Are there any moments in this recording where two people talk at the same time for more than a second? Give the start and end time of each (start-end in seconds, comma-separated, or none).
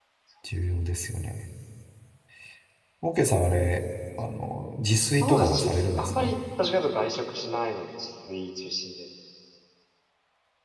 5.0-6.4